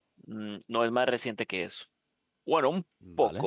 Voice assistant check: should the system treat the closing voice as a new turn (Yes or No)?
No